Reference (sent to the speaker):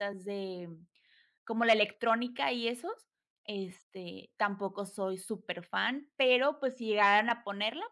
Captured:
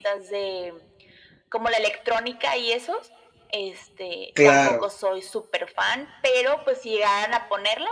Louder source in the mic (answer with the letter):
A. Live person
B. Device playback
A